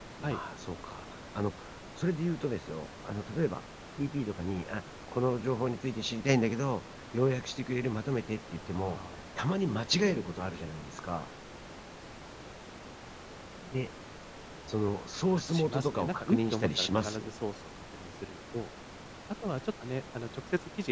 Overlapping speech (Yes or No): Yes